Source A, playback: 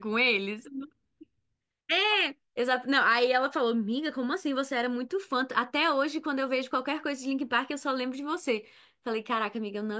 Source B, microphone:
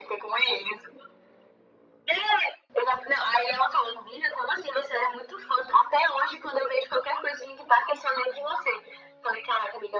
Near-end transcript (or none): none